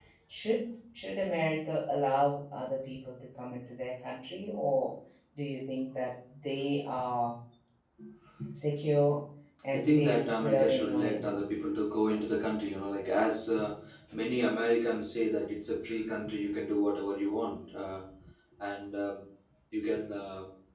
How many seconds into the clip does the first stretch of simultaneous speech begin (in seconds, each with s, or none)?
9.7 s